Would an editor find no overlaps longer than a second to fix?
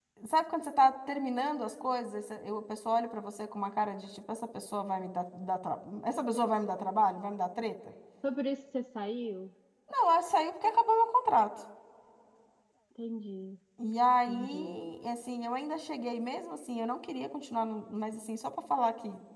Yes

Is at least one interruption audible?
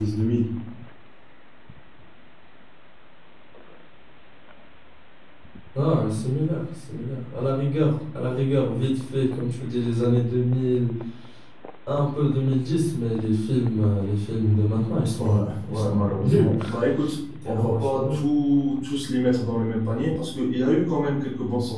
Yes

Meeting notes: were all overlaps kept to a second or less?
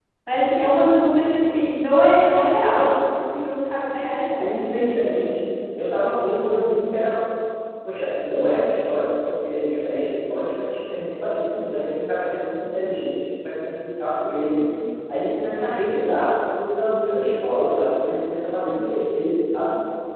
Yes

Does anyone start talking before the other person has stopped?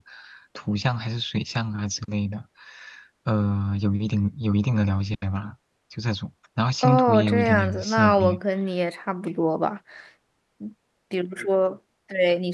Yes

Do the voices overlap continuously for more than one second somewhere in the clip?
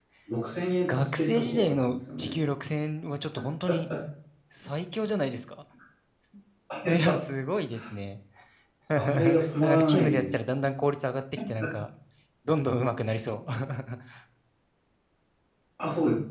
Yes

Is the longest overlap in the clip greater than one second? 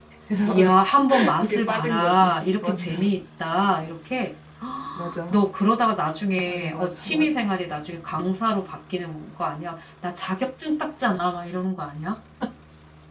Yes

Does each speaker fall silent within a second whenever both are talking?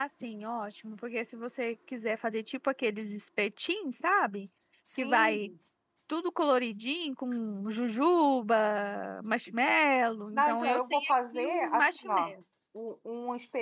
No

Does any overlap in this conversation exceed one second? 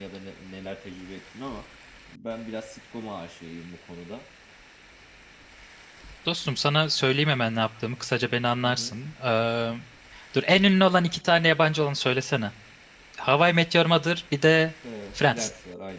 No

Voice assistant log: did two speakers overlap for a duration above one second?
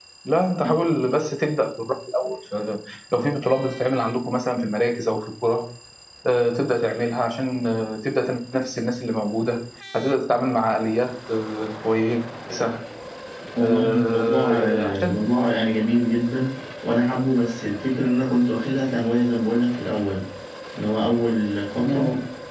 Yes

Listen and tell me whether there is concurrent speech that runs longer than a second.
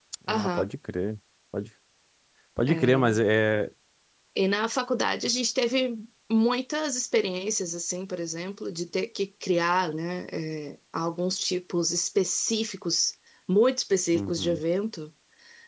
No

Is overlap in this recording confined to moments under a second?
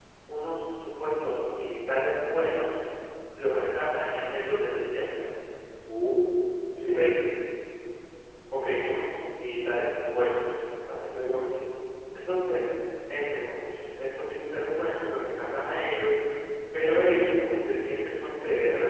Yes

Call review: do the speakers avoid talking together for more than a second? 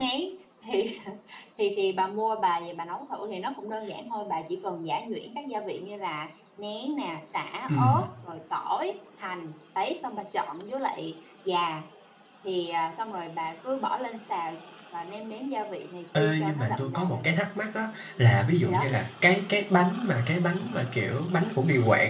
No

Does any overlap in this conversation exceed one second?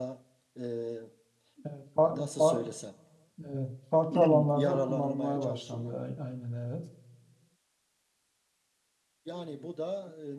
Yes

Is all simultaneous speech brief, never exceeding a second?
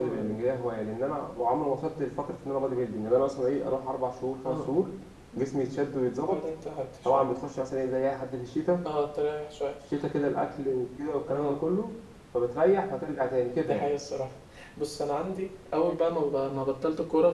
Yes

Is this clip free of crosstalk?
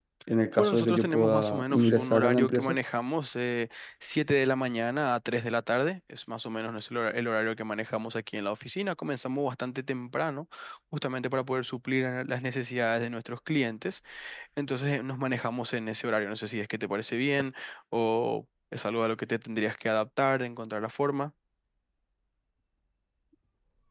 No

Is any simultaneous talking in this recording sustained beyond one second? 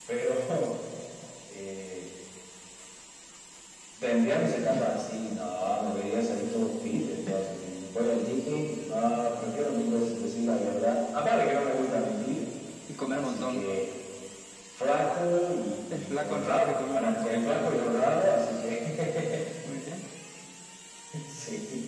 Yes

